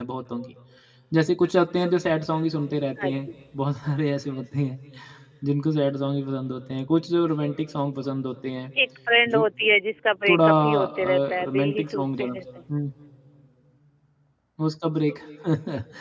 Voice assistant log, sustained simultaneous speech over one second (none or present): present